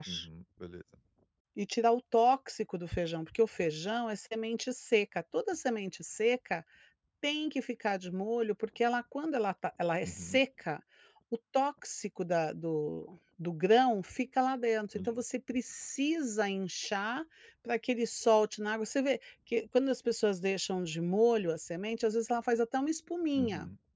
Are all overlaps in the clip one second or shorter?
Yes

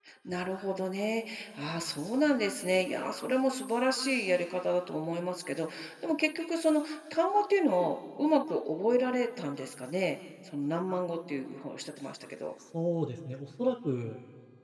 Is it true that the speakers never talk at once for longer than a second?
Yes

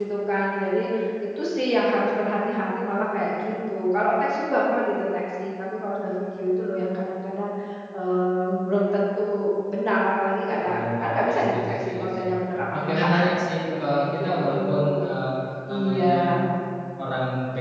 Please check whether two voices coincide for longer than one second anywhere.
Yes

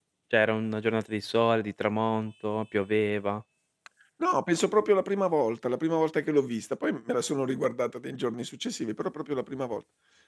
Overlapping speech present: No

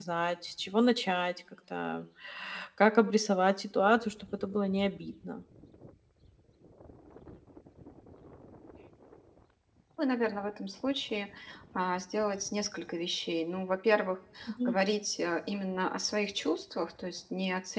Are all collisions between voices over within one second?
Yes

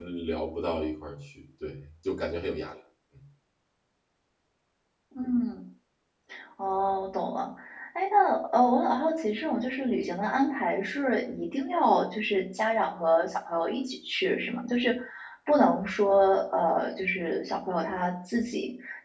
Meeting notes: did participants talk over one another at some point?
No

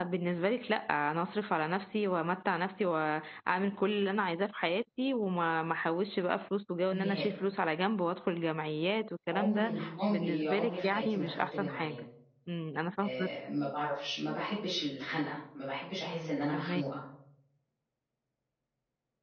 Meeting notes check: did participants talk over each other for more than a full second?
Yes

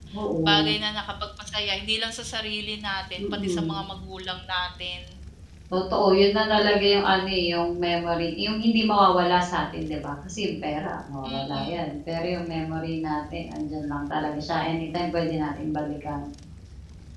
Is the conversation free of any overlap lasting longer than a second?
Yes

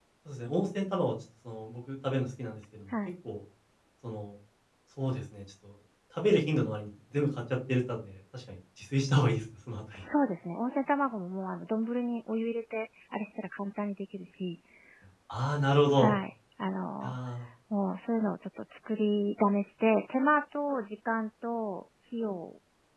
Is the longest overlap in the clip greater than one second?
No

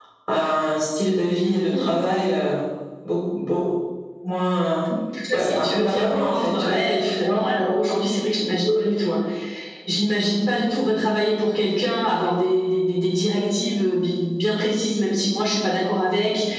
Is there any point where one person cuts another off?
Yes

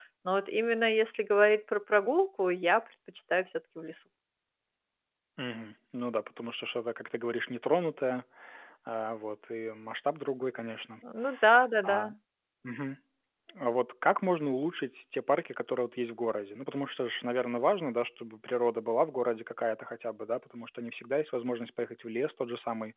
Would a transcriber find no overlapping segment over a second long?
Yes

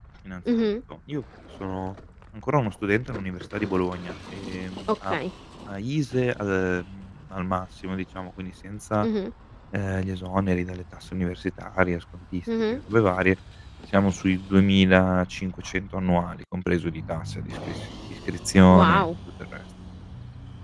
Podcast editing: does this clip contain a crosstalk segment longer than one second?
No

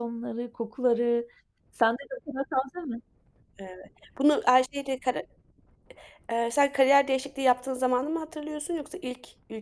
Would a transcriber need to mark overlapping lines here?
No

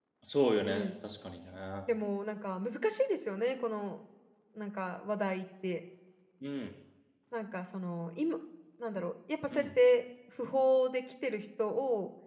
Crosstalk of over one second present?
No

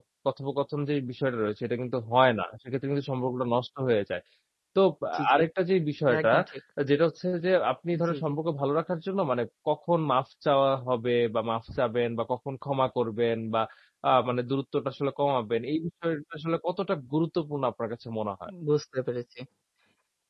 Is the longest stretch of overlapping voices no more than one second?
Yes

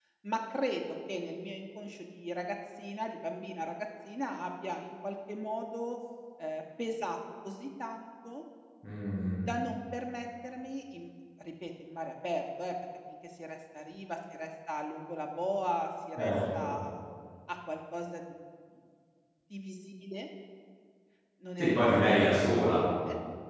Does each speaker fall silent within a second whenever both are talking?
No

